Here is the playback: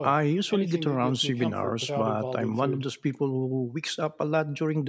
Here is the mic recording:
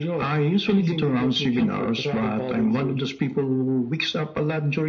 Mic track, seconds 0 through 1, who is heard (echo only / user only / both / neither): echo only